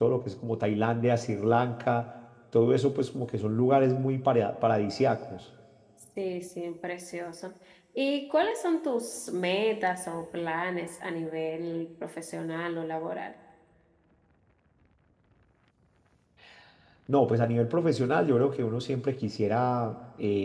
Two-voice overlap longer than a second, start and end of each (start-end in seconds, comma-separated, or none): none